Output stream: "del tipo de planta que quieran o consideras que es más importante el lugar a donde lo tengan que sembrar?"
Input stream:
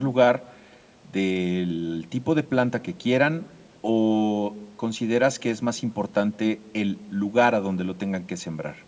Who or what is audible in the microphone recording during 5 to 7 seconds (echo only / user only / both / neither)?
echo only